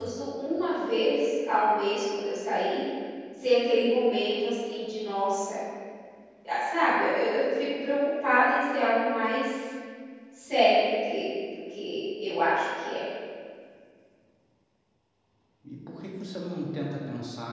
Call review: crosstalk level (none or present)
none